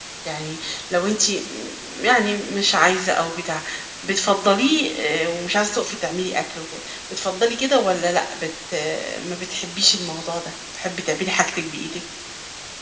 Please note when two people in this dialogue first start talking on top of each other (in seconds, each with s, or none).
none